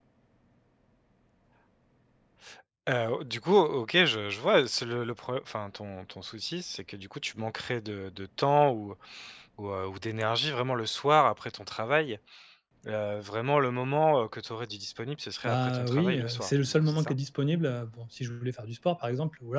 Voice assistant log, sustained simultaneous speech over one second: present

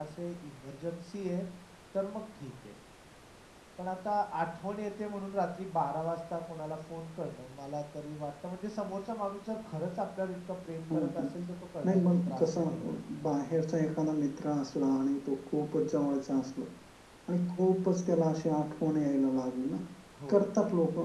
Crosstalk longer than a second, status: present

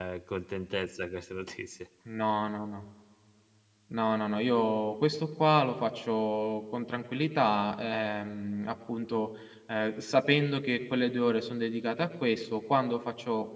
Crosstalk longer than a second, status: none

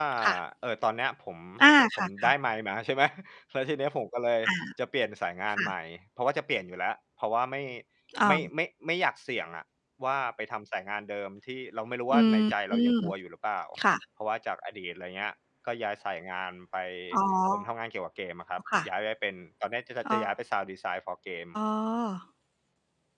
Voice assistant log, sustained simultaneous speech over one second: none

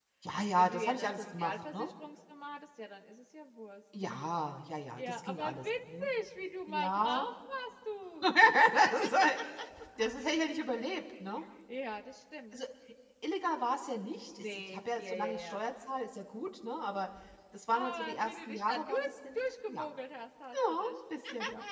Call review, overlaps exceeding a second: present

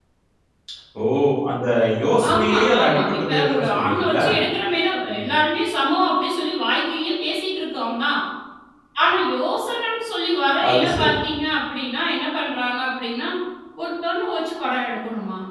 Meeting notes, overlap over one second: present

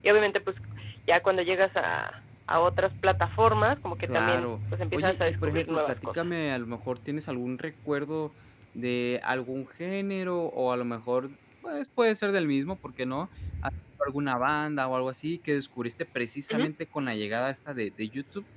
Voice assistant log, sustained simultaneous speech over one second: present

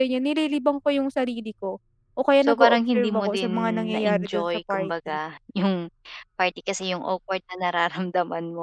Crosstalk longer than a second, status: present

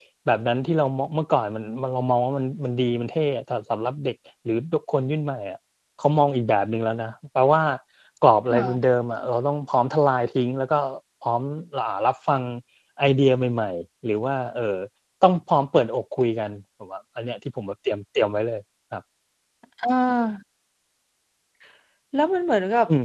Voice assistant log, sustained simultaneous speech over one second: none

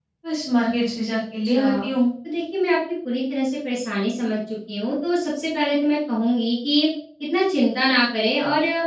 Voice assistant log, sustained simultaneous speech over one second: none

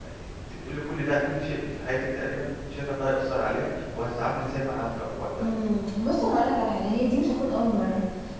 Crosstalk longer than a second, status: none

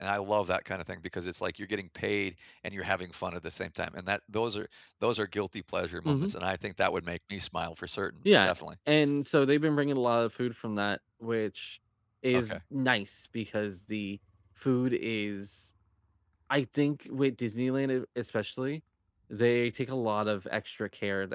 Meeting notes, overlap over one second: none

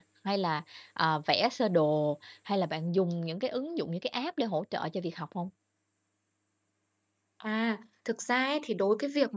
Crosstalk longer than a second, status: none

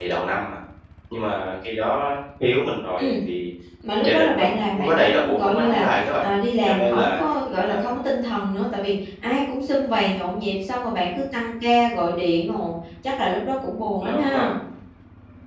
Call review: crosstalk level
present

